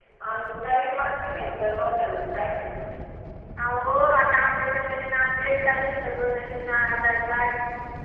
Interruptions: none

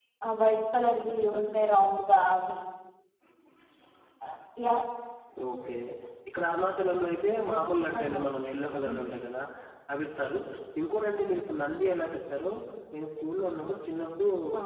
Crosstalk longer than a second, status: none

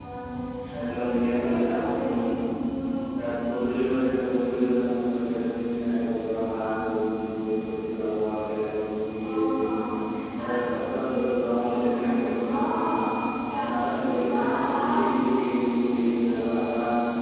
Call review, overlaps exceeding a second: present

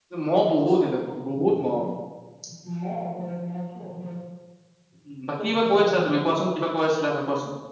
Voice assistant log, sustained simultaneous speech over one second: present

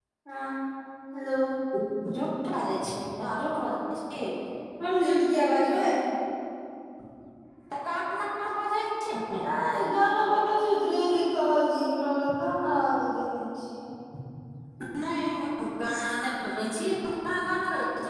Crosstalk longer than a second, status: none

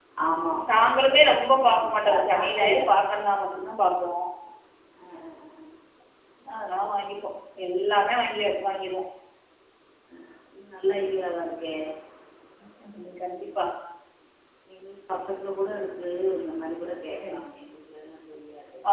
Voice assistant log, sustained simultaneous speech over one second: present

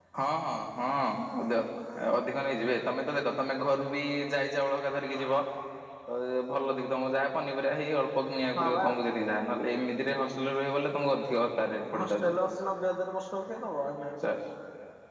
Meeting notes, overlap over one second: none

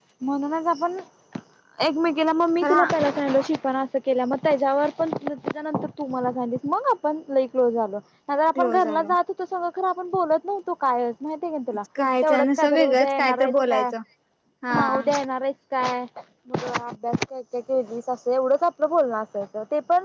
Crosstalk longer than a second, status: present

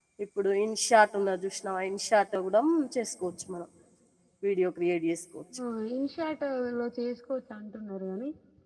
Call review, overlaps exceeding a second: none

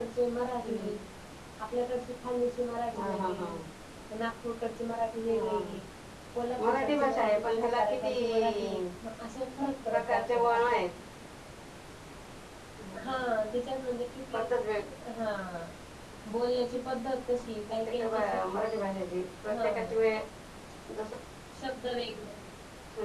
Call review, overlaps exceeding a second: present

